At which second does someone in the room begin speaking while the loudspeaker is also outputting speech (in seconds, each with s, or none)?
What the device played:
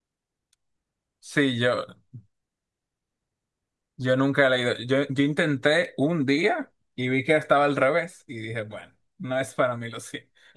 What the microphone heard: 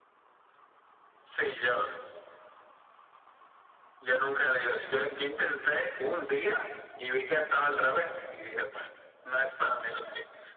none